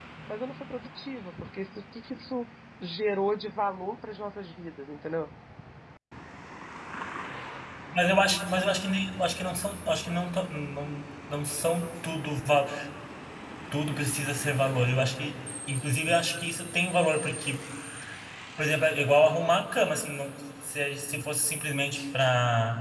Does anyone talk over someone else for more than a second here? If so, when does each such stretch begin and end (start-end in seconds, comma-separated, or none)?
none